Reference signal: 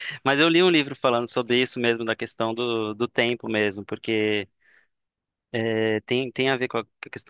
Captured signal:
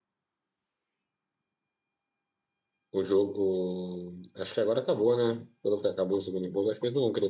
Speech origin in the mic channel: user only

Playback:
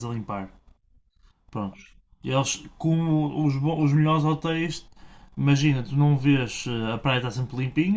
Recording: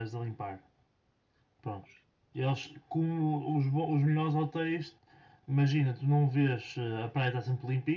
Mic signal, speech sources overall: echo only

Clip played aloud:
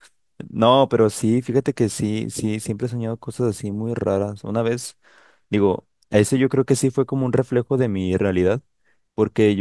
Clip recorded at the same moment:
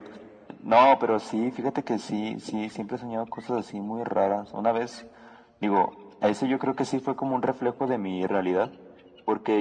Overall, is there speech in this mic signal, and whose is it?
echo only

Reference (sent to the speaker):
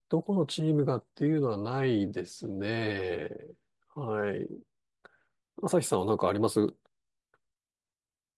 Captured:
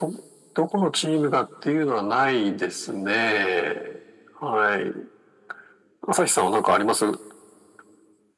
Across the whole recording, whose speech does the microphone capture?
echo only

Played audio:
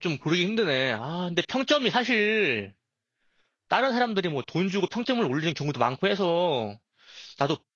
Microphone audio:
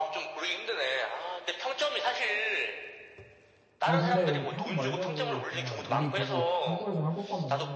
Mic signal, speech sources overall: both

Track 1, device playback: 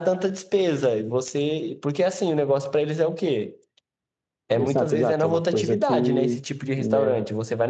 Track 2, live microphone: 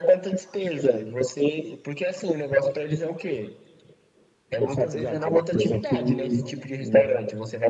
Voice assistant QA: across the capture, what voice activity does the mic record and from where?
echo only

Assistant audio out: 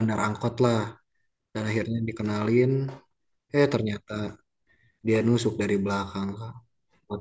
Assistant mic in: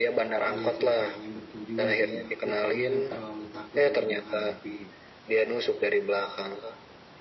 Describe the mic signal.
both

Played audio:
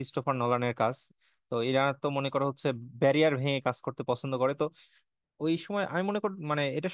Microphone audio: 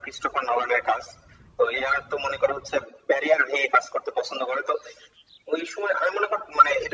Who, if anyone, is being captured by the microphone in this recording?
echo only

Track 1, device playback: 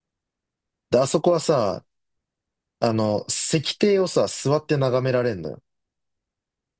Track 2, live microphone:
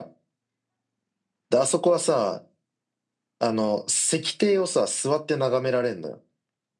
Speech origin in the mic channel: echo only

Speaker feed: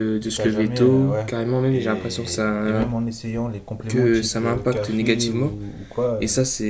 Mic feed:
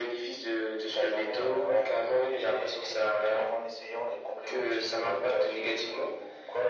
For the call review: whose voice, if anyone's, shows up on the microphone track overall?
echo only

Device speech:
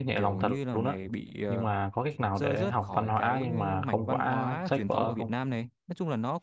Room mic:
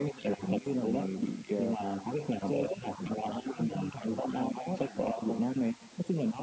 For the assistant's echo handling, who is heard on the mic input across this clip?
echo only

